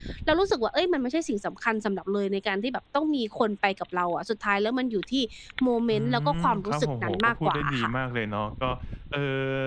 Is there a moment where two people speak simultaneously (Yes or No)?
Yes